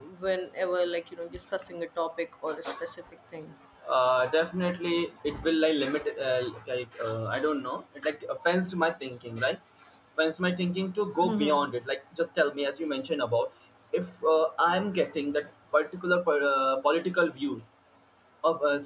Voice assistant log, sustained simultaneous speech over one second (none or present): none